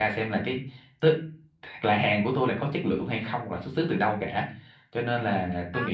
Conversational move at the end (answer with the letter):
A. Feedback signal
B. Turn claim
A